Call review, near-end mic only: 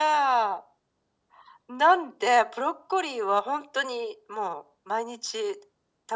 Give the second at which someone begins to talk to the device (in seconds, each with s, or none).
none